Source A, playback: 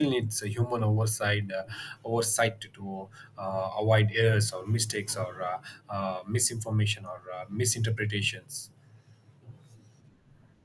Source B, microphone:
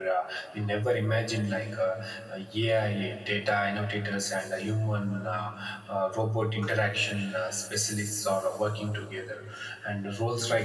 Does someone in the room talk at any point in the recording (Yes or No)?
Yes